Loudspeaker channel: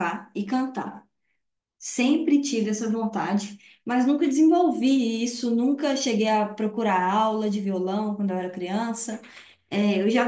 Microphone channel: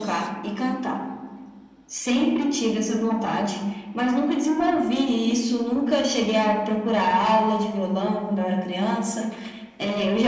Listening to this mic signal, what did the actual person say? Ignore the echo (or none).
none